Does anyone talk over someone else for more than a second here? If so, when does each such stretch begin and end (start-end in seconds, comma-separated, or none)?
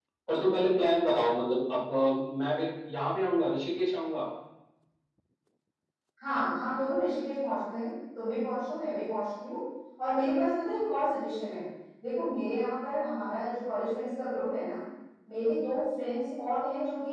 none